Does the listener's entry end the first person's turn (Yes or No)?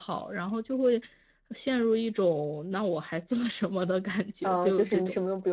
Yes